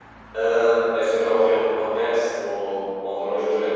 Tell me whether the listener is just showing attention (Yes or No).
No